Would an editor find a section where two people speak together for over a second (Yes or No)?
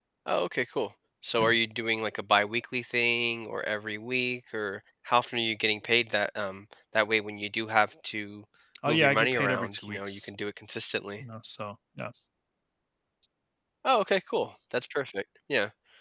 Yes